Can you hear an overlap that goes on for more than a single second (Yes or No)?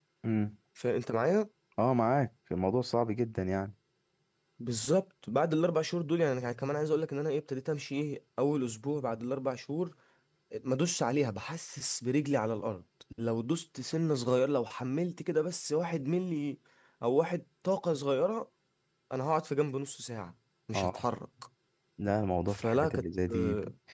Yes